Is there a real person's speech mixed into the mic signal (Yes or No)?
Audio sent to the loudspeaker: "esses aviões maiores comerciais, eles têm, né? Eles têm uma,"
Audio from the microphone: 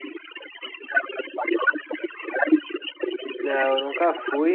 Yes